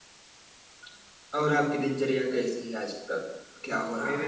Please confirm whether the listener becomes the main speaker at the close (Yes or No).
Yes